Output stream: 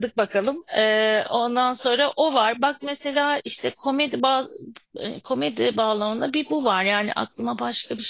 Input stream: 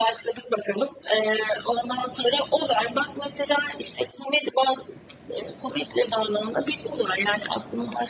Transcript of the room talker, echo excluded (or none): none